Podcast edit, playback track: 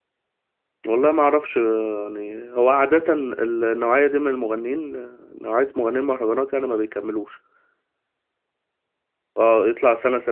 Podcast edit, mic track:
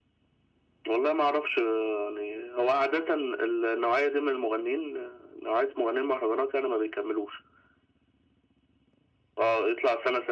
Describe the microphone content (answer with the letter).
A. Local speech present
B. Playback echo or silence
B